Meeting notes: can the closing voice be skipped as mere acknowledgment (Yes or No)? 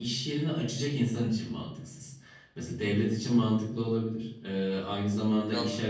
Yes